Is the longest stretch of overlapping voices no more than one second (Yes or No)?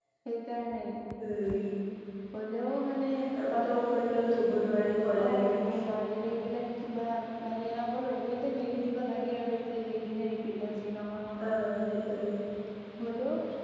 Yes